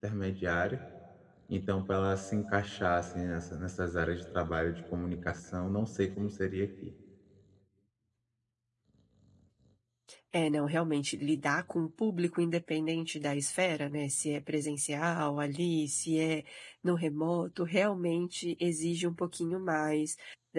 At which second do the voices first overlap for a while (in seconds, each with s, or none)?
none